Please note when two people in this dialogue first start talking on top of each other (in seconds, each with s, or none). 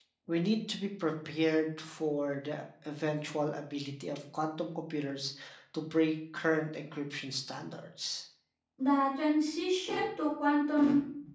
none